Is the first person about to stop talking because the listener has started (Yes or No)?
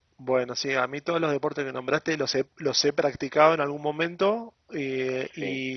No